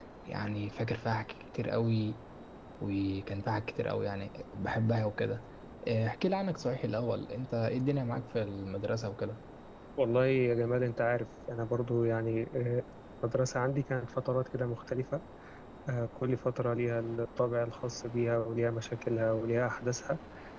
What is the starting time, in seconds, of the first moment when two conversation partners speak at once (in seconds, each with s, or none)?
none